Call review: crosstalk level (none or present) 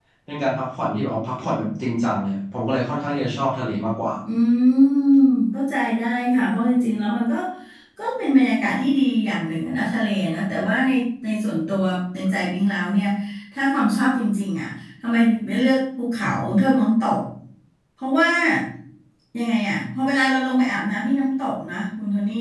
none